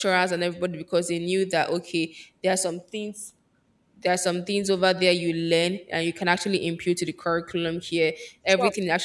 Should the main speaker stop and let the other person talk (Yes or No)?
No